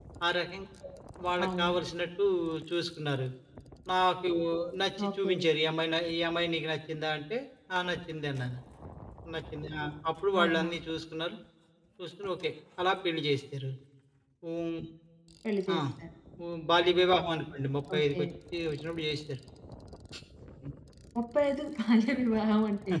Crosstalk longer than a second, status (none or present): none